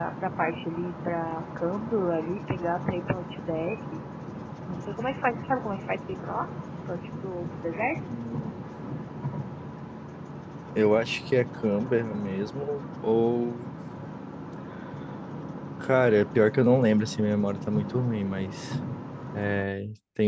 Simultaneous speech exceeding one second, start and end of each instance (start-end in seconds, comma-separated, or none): none